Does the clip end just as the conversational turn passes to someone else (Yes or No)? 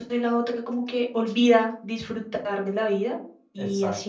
No